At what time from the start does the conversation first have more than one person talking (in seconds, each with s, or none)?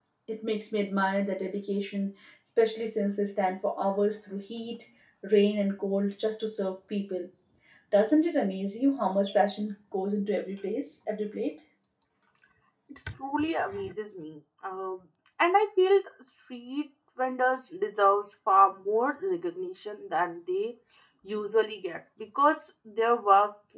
none